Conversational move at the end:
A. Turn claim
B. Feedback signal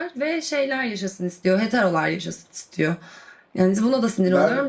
A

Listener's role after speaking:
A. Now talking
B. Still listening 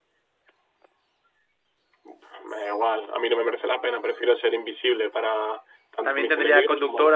A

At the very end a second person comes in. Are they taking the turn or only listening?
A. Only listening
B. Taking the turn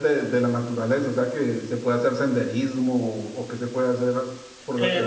B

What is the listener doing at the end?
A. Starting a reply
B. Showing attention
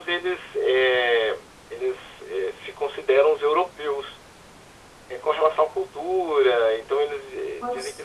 A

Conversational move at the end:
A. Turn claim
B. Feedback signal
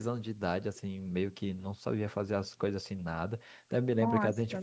B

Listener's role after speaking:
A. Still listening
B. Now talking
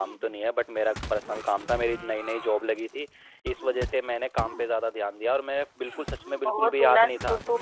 B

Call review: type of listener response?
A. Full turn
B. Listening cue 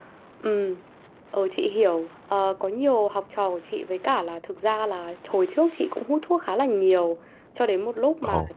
B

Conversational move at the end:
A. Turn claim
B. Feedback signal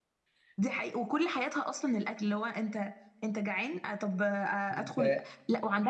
B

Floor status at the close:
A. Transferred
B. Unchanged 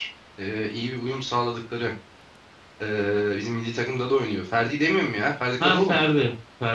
A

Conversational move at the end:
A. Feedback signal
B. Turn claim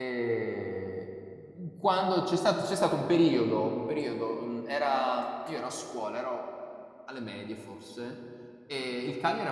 A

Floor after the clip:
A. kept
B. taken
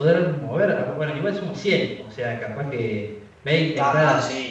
B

